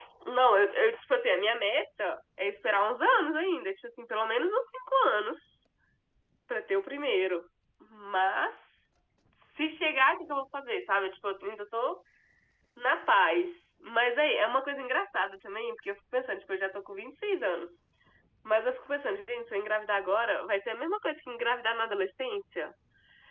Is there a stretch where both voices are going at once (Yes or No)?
No